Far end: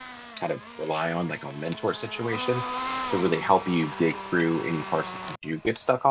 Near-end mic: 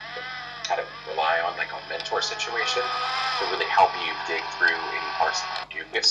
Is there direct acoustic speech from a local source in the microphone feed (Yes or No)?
No